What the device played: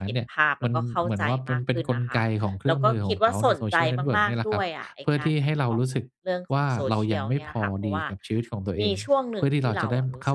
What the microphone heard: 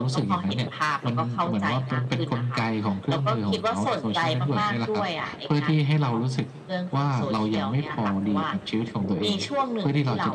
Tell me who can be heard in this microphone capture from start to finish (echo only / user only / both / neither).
echo only